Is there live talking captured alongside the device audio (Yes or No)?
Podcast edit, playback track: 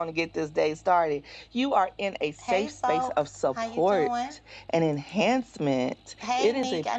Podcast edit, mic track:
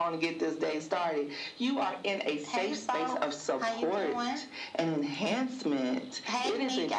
No